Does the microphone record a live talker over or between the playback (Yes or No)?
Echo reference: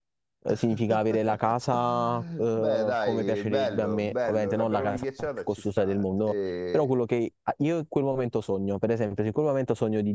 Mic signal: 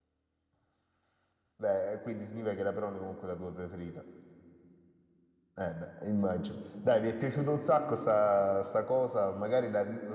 Yes